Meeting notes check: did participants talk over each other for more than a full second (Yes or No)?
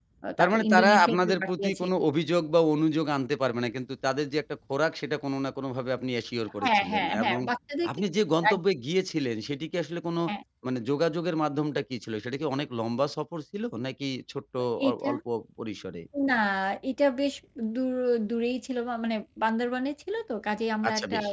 Yes